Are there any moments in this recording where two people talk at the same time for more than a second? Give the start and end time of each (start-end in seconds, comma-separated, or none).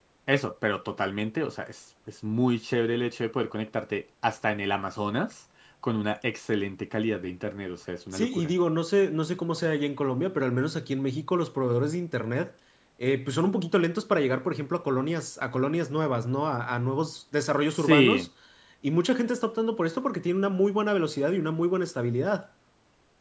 none